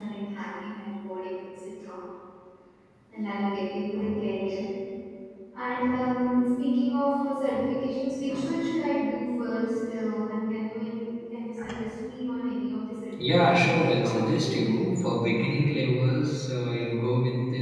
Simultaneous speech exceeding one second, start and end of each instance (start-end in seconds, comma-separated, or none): 13.2-14.7